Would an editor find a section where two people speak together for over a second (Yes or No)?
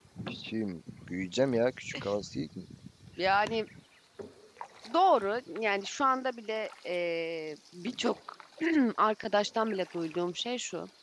No